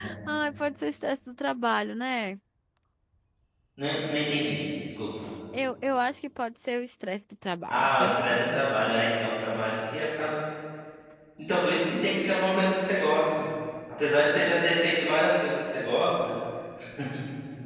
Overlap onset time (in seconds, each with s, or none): 7.7 s